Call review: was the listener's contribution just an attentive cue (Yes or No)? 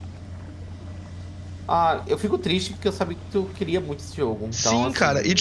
No